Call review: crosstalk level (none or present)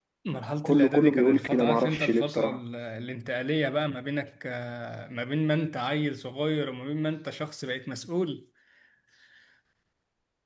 present